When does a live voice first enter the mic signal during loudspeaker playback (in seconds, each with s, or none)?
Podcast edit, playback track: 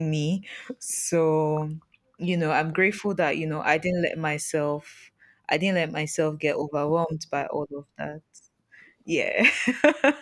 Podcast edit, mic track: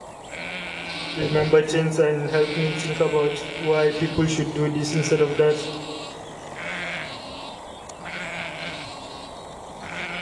1.1 s